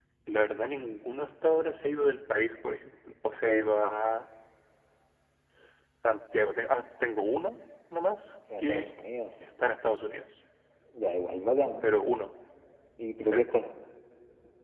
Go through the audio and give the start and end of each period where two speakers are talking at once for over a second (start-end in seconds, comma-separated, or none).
none